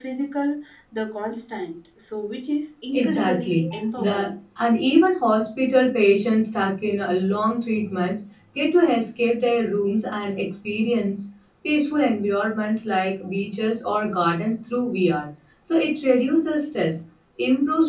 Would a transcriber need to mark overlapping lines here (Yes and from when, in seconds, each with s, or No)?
Yes, from 2.9 s